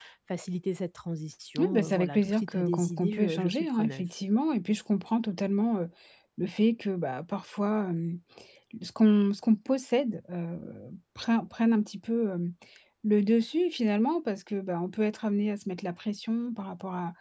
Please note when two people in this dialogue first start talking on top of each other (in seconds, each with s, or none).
1.6 s